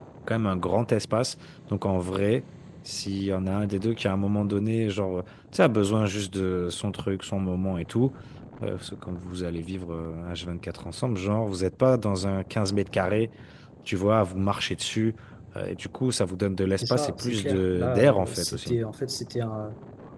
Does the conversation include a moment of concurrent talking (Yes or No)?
Yes